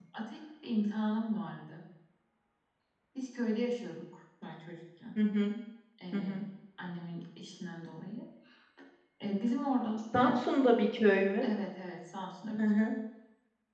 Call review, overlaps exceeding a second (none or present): none